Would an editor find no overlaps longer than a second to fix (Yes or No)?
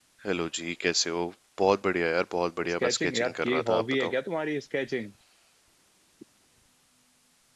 No